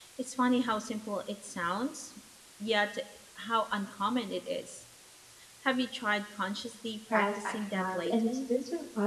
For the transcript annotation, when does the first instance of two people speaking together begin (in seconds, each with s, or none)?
7.1 s